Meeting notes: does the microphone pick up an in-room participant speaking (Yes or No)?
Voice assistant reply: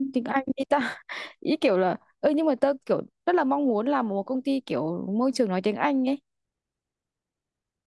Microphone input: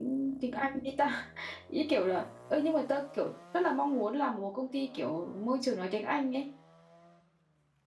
No